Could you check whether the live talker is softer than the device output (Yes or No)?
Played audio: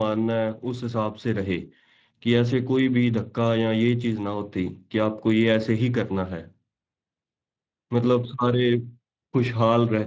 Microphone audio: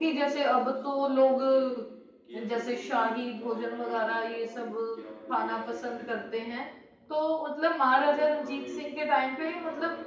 No